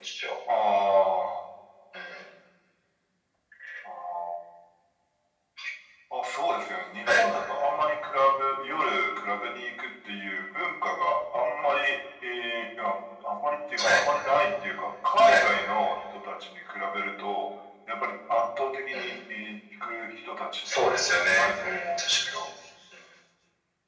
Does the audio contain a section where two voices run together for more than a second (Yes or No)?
Yes